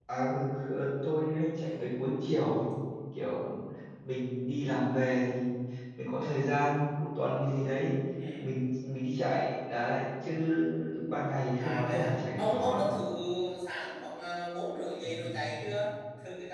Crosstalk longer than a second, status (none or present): present